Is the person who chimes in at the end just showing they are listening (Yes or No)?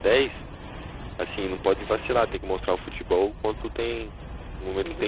No